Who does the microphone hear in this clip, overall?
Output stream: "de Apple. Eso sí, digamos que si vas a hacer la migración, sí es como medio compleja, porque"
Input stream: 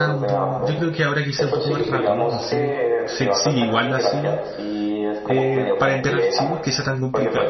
both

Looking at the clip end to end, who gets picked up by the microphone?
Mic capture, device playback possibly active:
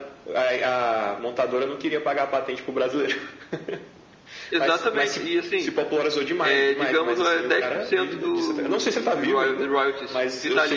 both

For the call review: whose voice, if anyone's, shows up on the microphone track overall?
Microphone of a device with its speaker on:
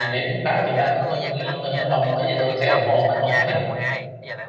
both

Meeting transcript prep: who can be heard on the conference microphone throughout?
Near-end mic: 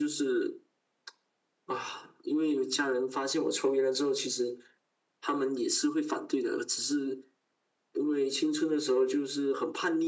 echo only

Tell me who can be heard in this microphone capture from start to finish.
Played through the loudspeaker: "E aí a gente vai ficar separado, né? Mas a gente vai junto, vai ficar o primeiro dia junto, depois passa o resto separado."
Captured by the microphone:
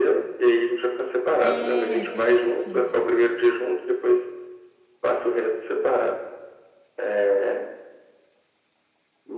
both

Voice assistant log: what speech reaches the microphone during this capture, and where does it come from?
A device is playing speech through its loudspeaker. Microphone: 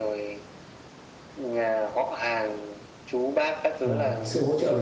both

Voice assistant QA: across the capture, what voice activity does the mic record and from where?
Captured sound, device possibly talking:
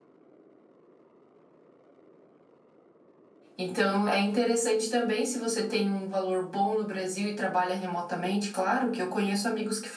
user only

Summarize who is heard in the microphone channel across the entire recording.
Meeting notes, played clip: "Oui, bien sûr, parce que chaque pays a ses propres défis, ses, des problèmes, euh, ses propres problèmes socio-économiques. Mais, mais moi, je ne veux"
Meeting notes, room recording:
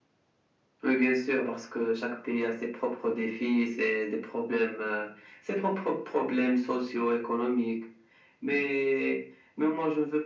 echo only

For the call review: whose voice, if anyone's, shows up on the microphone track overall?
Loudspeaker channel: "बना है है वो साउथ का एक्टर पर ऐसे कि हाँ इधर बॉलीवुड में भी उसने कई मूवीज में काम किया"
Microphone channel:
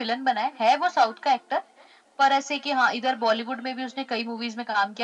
echo only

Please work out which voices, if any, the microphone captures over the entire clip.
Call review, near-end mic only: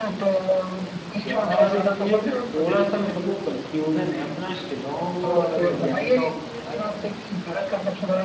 both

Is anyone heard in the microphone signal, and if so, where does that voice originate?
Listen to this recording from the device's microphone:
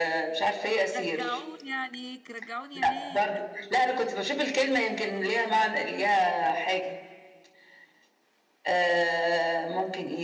both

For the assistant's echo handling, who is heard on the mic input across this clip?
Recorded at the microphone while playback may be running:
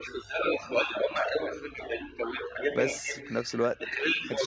both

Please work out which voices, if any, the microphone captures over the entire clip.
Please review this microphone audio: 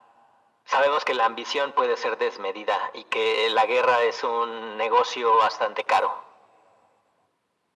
echo only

